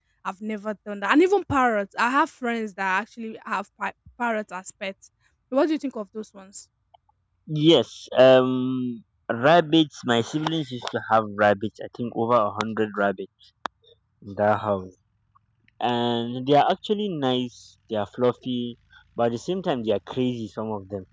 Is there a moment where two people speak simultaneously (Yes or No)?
No